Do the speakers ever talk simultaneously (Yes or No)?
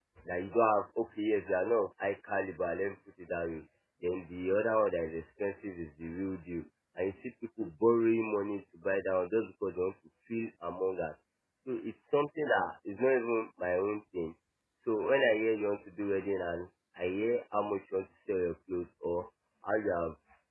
No